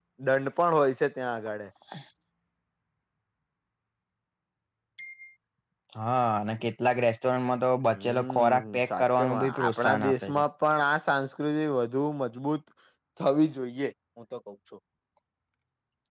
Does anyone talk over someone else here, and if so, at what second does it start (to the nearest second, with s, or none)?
8 s